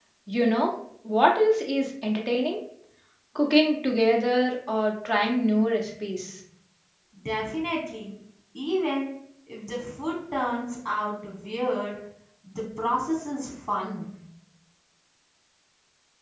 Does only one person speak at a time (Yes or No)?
Yes